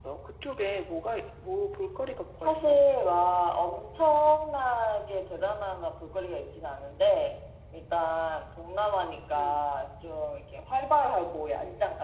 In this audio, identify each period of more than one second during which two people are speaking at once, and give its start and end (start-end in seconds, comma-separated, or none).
none